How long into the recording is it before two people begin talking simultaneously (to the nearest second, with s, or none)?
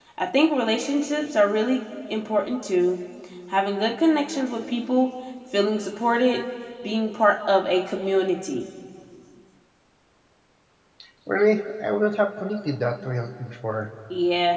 none